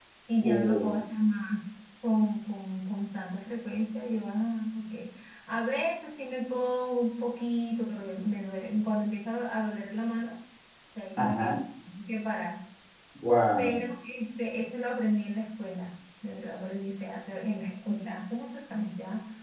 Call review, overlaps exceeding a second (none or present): none